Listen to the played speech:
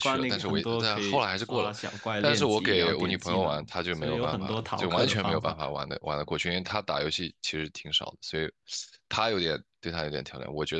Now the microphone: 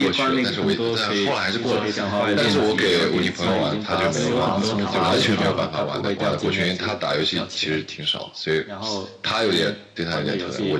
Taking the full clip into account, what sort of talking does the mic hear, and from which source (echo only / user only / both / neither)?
both